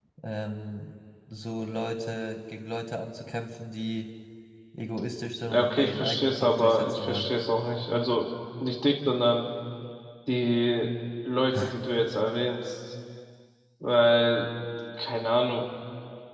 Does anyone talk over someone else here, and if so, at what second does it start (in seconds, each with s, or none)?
5.4 s